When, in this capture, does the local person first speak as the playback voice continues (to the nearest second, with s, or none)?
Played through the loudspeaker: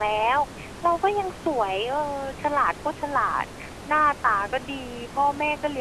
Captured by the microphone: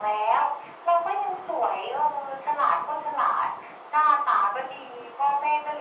none